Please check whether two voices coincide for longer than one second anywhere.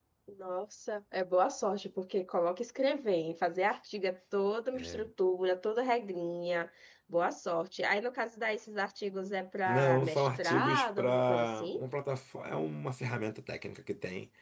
Yes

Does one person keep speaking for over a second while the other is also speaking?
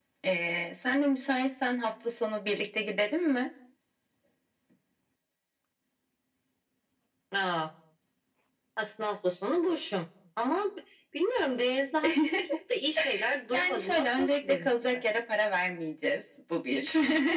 Yes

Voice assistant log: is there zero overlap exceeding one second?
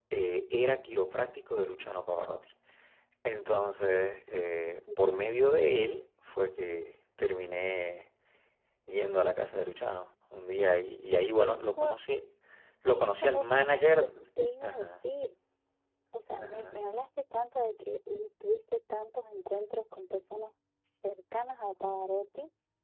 No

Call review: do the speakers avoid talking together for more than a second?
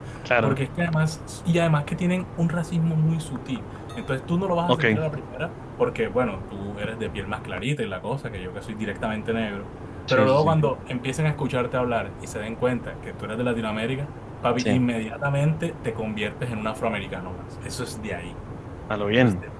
Yes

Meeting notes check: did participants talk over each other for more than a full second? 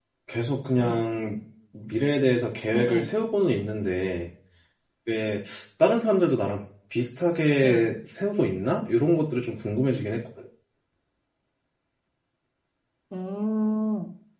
No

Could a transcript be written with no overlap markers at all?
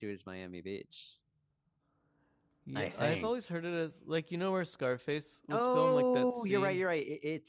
No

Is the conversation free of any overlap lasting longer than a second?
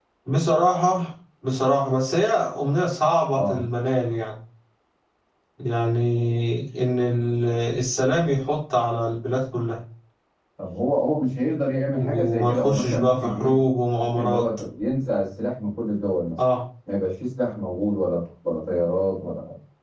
No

